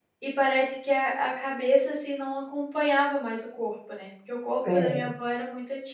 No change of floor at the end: Yes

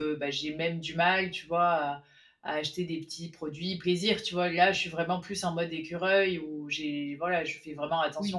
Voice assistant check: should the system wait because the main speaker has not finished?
No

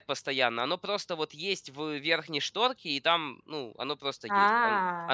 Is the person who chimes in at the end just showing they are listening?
Yes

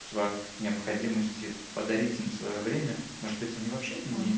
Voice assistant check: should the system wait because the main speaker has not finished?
Yes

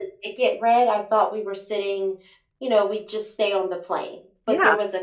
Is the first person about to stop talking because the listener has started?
No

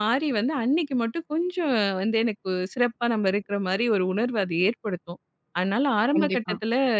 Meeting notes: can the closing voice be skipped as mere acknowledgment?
Yes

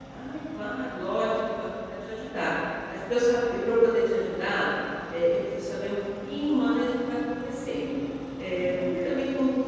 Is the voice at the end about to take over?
No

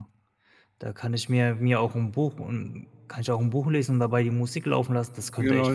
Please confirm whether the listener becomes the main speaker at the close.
Yes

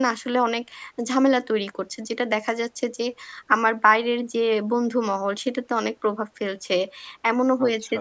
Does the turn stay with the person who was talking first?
Yes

